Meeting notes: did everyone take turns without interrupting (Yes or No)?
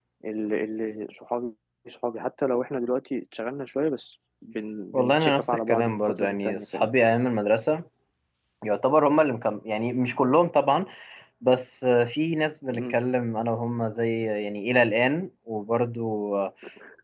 No